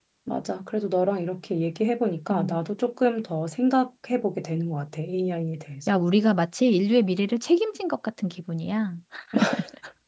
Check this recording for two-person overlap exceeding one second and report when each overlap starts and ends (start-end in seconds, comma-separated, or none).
none